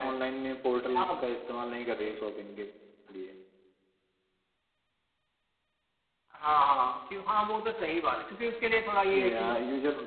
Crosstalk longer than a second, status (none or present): none